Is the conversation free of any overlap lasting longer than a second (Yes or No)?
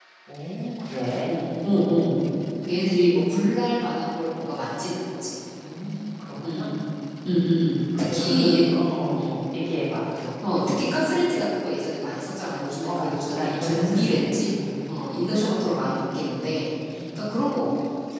No